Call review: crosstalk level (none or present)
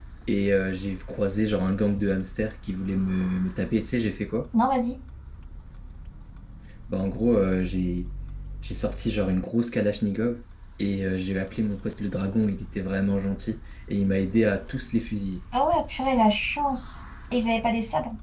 none